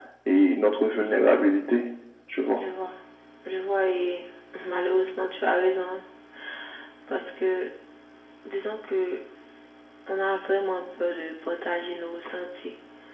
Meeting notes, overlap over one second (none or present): none